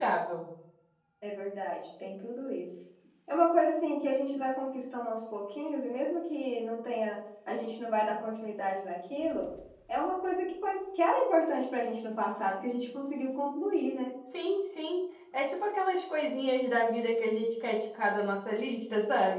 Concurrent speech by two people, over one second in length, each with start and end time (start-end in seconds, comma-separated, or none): none